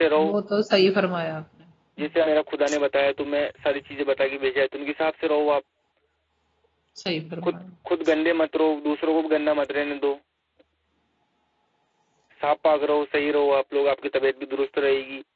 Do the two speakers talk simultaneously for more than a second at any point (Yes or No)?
No